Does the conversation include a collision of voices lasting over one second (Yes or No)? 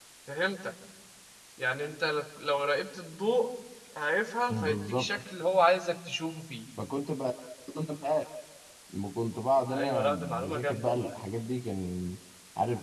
Yes